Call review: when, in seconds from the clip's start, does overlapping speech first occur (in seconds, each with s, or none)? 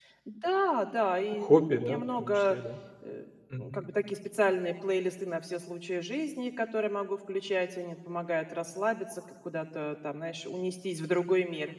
1.3 s